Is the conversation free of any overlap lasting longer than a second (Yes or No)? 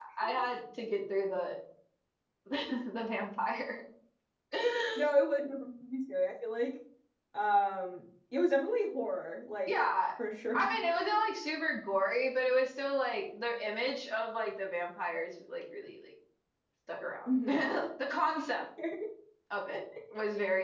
Yes